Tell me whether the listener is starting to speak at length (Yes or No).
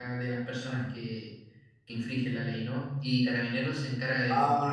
Yes